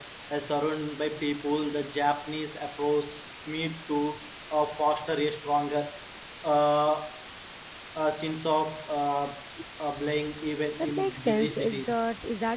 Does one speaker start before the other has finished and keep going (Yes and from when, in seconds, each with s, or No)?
Yes, from 10.8 s